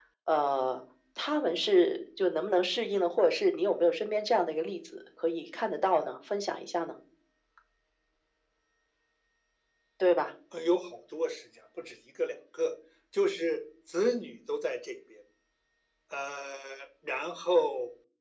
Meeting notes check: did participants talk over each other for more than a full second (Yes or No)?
No